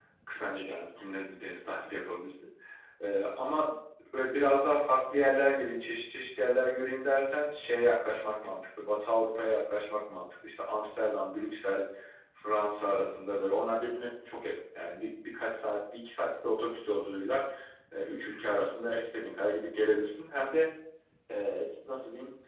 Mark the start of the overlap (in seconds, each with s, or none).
none